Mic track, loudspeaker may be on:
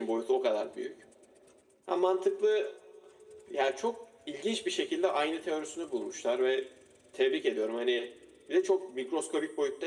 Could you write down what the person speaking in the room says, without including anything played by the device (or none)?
none